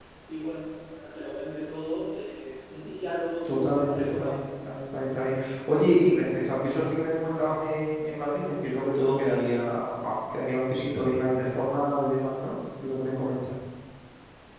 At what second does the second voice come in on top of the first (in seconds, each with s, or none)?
3.4 s